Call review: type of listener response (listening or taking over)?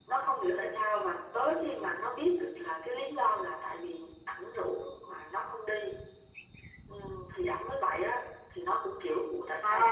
taking over